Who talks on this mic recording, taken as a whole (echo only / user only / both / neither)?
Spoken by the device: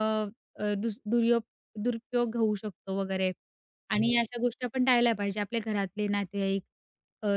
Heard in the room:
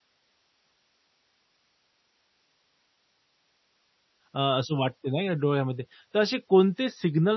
user only